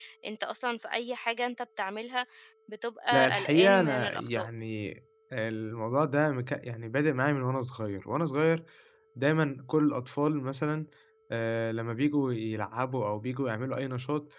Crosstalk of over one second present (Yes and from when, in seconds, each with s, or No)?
Yes, from 3.1 s